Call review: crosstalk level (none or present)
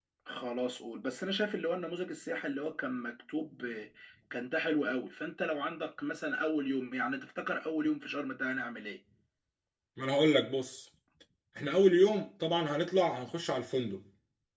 none